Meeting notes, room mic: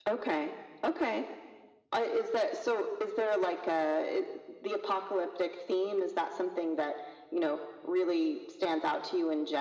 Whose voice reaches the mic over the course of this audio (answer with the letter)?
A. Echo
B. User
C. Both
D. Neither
A